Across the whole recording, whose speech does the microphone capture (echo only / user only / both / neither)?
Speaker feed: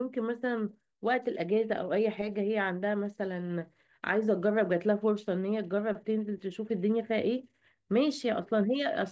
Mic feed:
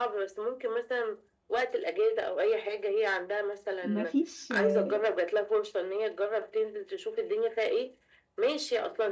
both